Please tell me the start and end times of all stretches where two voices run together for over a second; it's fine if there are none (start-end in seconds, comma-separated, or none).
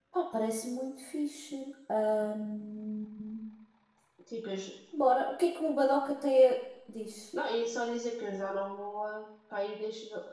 none